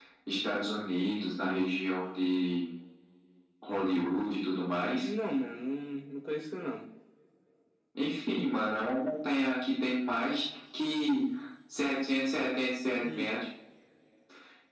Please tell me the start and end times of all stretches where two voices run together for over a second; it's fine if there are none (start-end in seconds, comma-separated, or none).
none